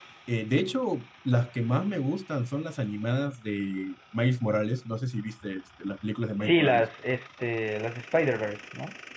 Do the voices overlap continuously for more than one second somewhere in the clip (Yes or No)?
No